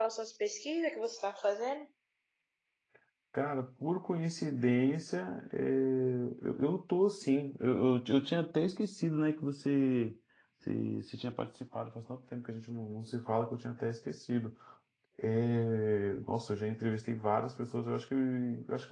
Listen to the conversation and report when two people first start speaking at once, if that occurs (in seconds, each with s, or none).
none